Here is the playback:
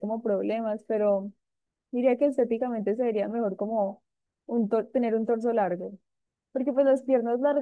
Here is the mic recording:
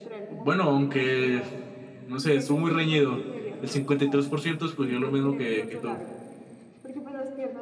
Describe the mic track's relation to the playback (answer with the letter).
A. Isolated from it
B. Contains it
B